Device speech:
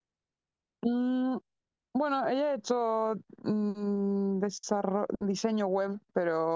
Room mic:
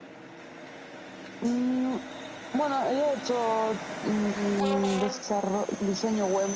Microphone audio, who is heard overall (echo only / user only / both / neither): echo only